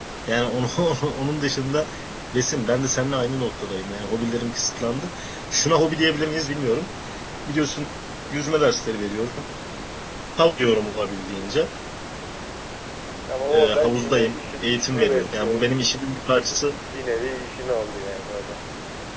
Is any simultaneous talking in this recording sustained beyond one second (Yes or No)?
Yes